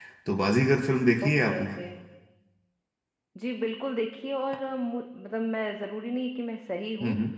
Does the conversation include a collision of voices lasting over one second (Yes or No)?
No